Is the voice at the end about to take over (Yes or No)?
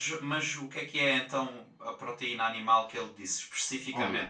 No